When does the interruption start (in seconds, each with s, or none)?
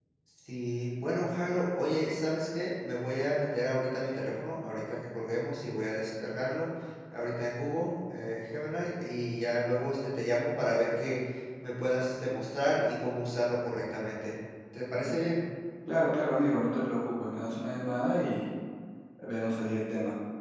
none